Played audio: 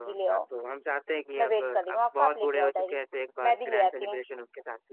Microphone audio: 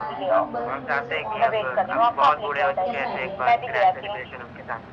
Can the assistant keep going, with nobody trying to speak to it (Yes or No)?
No